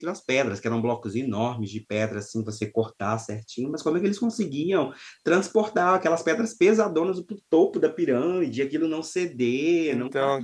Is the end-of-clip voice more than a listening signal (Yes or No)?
No